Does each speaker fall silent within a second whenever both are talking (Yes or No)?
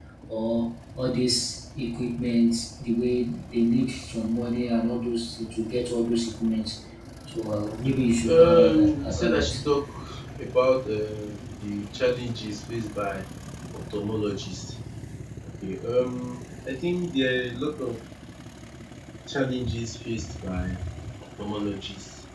No